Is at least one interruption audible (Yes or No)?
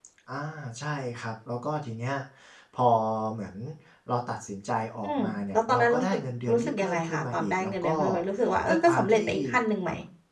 Yes